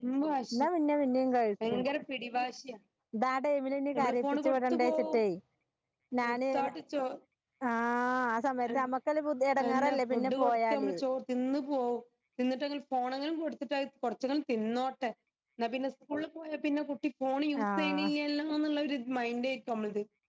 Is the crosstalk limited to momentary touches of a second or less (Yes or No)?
No